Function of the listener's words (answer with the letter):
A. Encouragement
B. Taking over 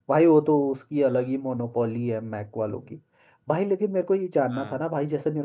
A